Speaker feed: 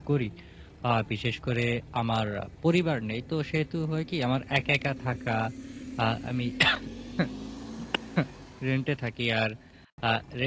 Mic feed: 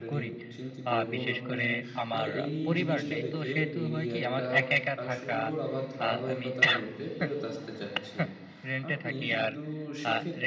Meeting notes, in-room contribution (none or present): present